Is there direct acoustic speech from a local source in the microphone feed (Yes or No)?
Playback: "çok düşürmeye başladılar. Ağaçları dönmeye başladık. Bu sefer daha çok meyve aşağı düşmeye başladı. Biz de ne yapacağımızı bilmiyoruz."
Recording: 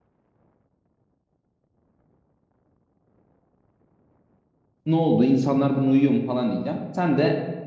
Yes